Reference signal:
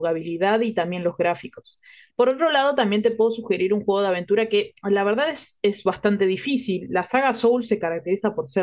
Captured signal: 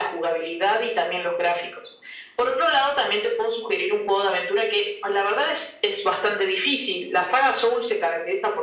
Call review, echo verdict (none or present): present